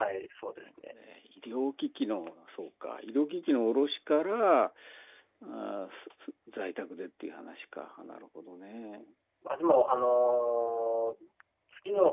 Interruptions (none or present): none